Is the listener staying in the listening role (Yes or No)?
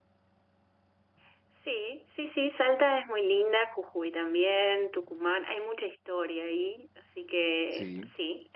Yes